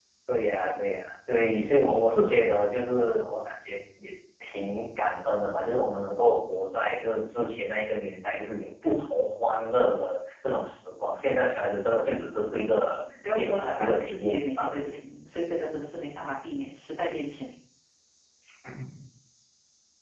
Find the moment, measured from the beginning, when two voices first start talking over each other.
13.4 s

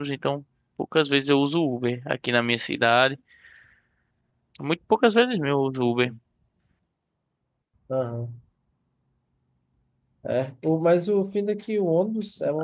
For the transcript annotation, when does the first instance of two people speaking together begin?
none

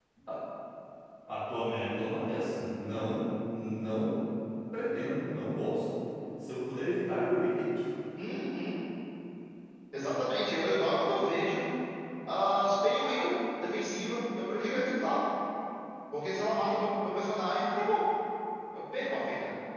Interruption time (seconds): none

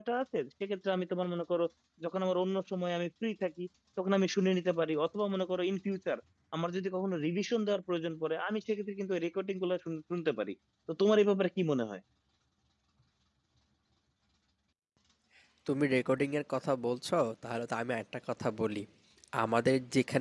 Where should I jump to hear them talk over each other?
none

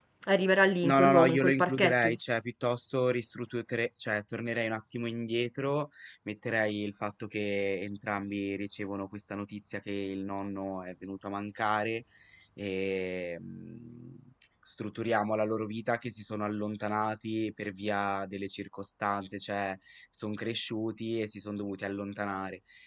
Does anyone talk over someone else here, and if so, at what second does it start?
0.8 s

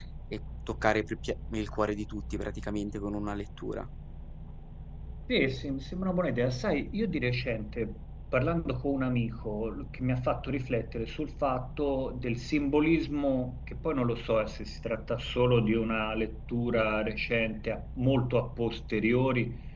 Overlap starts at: none

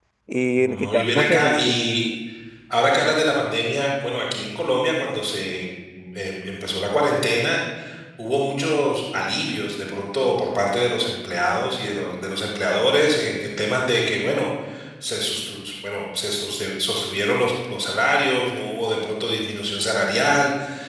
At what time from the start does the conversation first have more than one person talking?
0.6 s

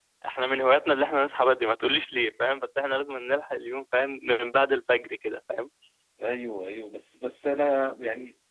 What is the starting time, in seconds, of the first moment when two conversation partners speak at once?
none

